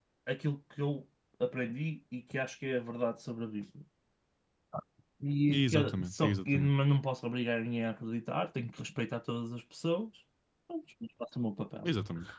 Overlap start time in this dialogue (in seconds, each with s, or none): 5.5 s